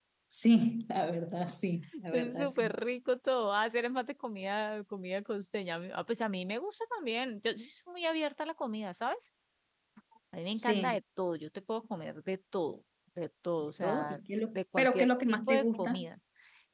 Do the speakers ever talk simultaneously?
Yes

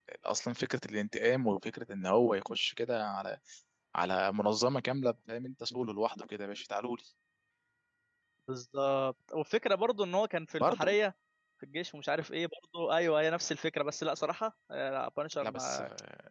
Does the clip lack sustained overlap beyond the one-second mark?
Yes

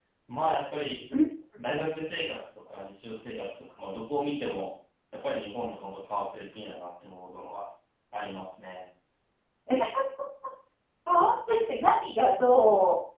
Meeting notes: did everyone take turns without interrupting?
Yes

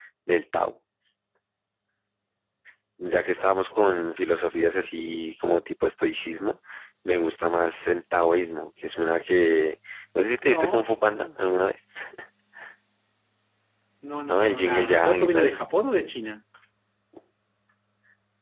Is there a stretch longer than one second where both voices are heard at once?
Yes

